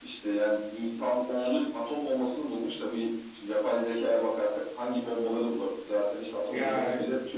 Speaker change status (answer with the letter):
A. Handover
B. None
B